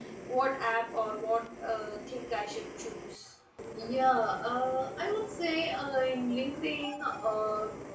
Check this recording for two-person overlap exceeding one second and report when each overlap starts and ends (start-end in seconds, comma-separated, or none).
none